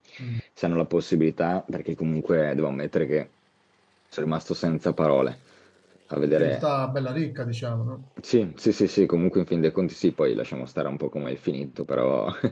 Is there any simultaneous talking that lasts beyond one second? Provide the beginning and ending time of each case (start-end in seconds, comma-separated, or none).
none